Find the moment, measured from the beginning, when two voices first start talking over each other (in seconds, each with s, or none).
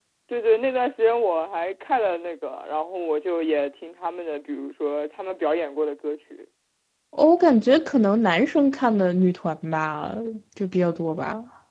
none